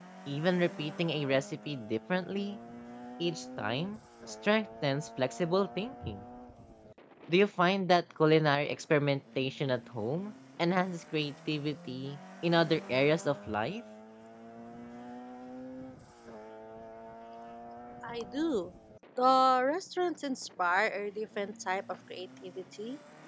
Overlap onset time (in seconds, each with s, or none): none